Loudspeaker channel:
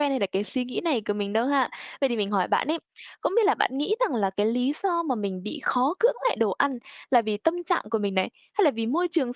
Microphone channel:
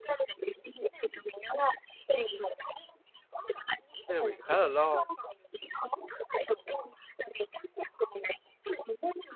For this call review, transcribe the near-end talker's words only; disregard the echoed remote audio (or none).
Thế là mình khá là lo.